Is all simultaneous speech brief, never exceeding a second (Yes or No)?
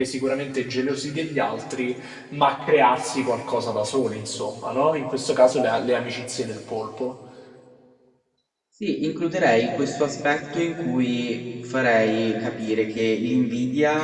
Yes